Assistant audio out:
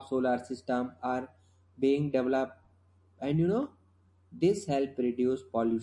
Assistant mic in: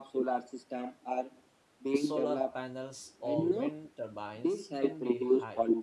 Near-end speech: present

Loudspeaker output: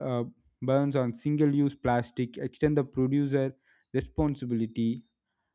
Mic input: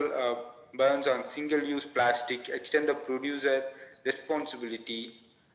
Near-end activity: none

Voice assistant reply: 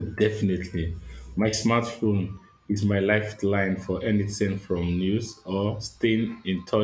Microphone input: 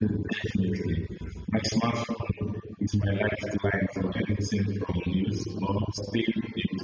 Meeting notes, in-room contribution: none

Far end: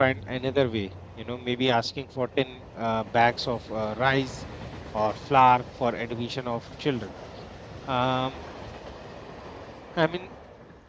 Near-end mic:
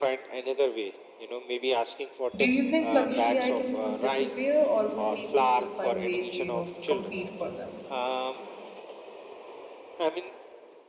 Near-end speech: present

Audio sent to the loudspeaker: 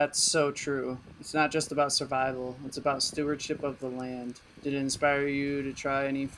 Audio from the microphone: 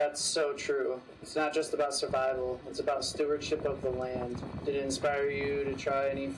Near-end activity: none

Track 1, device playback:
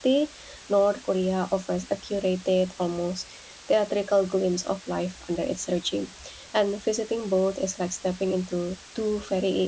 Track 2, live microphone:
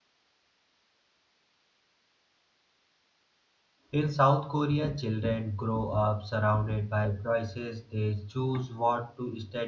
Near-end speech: present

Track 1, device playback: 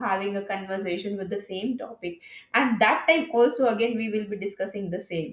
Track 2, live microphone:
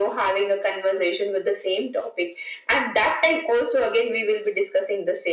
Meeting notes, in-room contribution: none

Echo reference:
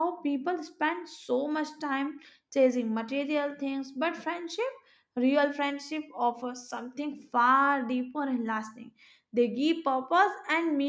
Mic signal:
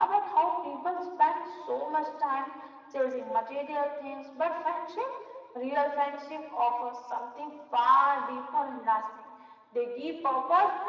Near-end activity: none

